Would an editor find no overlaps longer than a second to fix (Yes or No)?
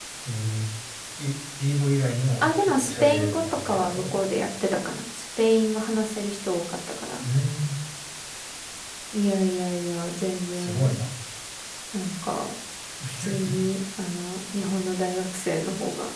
No